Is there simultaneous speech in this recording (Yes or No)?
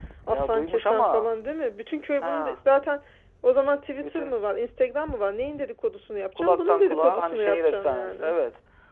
Yes